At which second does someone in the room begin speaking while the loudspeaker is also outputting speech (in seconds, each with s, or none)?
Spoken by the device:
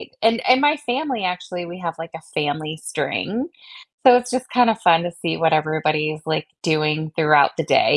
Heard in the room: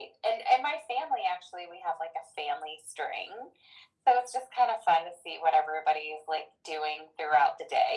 none